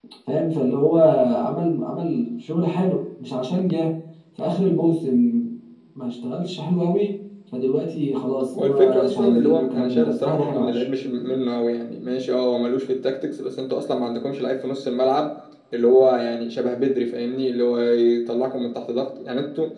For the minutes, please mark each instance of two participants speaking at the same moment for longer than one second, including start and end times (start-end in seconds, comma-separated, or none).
8.5-10.8